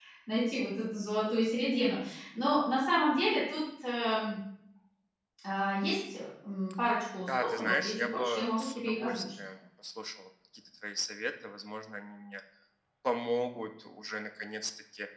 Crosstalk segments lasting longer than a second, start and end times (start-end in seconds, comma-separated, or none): 7.2-9.3